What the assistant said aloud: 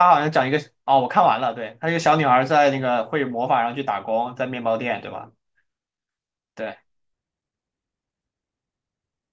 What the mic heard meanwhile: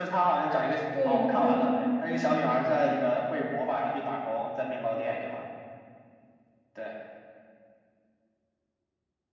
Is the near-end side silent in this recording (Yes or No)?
No